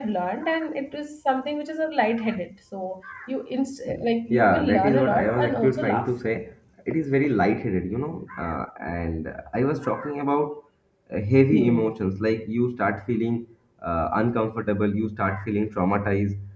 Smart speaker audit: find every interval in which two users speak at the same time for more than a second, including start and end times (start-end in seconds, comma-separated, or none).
4.3-6.1